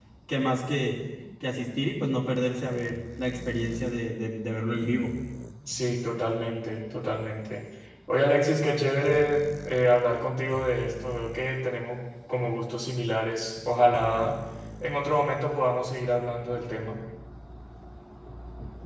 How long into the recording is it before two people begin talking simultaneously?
none

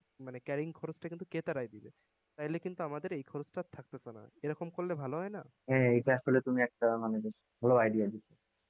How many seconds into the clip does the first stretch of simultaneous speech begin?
none

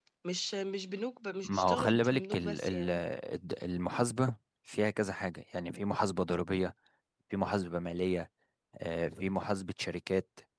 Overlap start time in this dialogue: 1.4 s

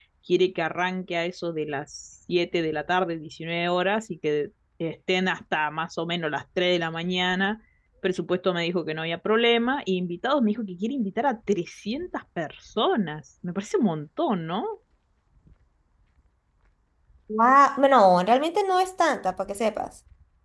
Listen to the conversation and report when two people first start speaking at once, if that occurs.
none

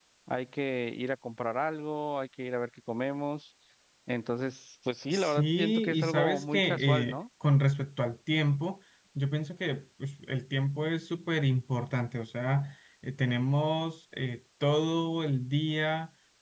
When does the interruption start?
5.1 s

